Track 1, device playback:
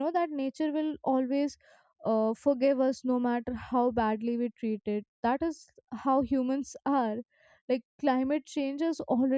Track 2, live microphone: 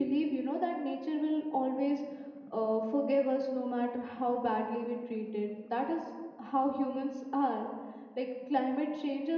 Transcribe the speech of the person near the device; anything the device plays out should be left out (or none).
none